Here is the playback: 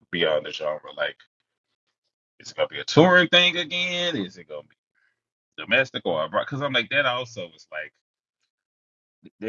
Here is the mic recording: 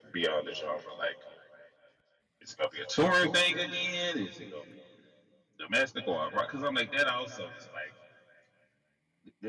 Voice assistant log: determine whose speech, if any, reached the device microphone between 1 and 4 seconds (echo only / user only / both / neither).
echo only